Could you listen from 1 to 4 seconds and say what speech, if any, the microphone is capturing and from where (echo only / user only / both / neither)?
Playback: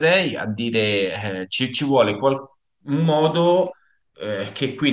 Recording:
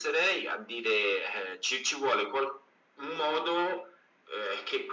echo only